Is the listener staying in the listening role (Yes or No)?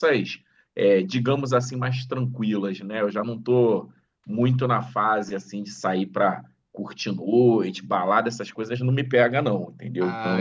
No